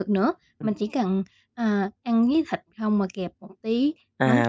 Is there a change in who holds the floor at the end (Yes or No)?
Yes